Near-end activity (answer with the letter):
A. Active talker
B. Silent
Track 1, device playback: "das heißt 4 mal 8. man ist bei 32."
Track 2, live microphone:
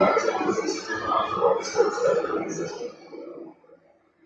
B